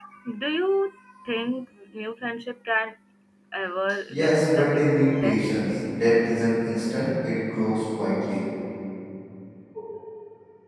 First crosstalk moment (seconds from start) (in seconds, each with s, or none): 4.1 s